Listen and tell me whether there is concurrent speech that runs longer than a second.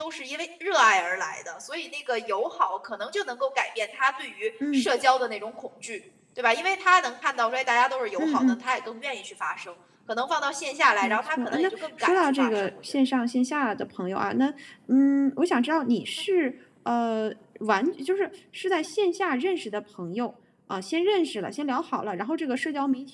Yes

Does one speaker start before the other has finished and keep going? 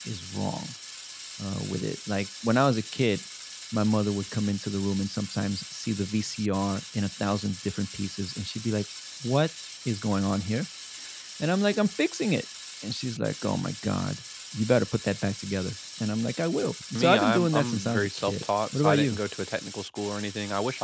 Yes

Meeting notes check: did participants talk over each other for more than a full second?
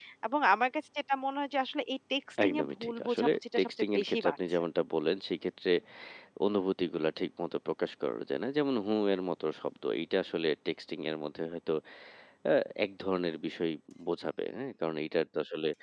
Yes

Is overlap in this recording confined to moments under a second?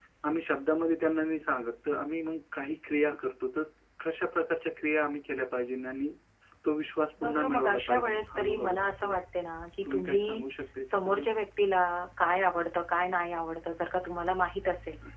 No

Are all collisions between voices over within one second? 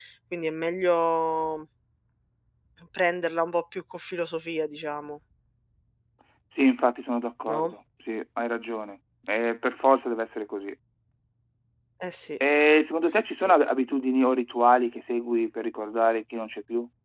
Yes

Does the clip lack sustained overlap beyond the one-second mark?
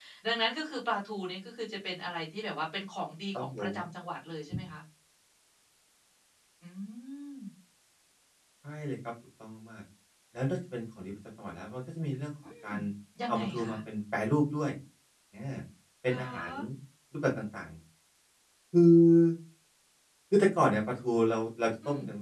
Yes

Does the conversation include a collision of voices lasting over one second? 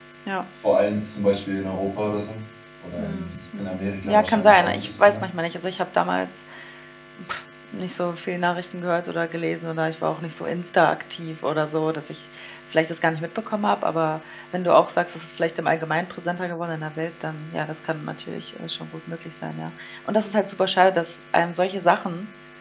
Yes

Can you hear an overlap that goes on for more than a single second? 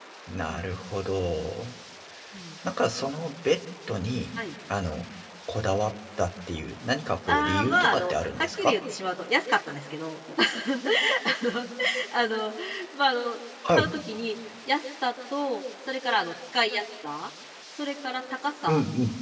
Yes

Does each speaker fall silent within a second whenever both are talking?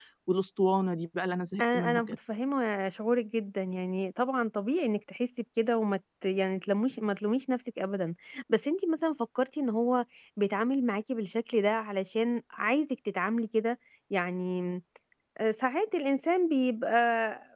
Yes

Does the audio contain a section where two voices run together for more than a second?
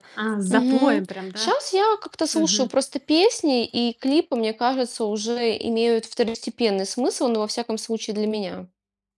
No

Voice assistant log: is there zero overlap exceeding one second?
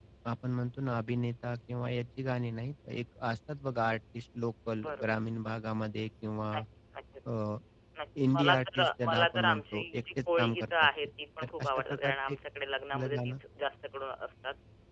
No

